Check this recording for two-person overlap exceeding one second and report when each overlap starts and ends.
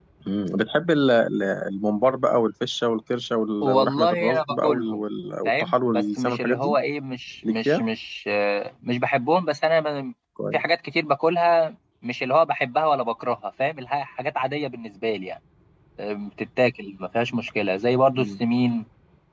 3.6-5.0, 5.5-6.8

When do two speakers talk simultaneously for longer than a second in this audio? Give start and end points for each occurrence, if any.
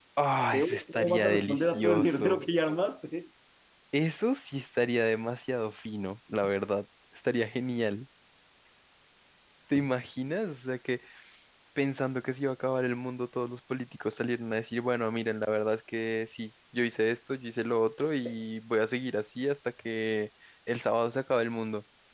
0.5-2.4

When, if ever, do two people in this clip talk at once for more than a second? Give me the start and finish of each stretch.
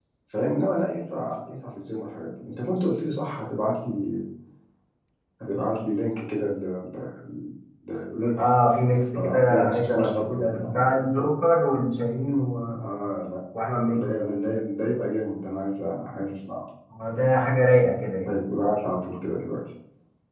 9.2-10.8

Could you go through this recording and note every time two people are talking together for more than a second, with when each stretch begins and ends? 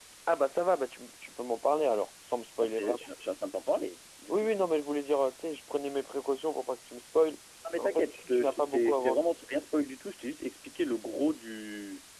7.8-9.3

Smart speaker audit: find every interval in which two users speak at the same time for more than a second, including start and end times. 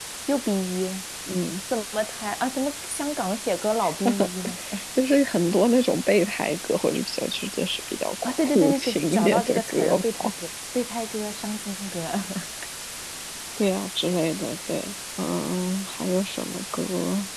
8.2-10.3

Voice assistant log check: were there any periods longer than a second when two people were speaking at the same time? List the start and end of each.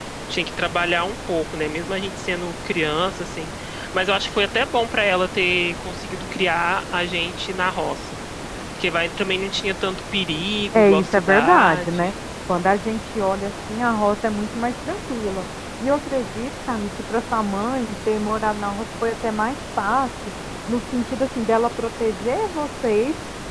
10.7-12.1

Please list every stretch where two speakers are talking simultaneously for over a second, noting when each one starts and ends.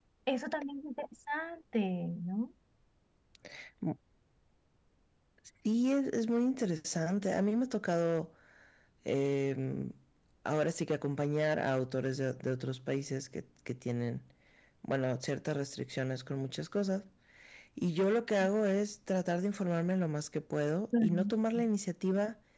none

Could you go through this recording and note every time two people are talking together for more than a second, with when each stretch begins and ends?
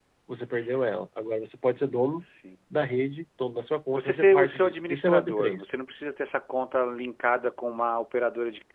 3.9-5.7

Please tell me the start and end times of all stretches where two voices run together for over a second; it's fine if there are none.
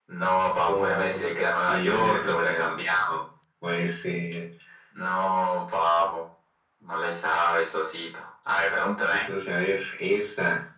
0.7-3.1

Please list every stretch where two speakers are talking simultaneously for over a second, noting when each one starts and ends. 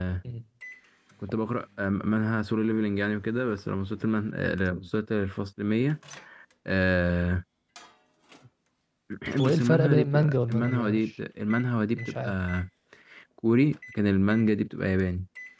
9.5-11.1

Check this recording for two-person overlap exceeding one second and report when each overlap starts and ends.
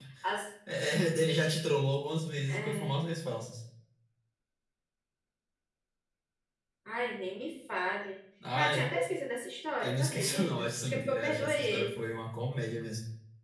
9.8-12.0

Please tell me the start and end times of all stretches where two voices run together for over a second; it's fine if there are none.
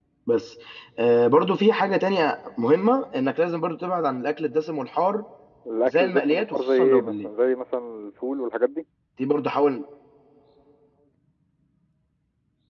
5.8-7.3

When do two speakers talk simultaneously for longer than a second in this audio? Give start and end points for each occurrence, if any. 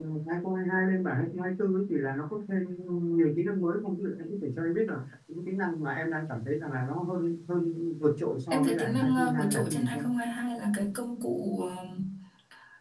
8.5-10.1

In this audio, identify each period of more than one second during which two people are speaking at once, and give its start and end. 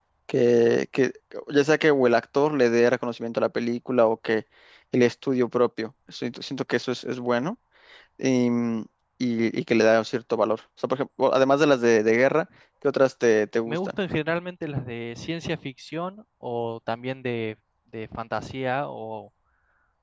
none

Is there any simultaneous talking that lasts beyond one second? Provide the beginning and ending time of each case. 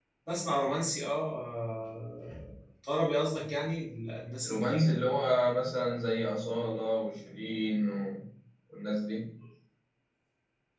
none

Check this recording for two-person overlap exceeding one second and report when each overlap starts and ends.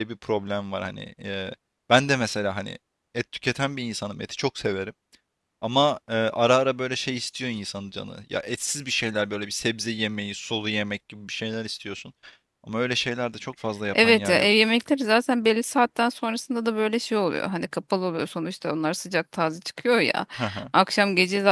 none

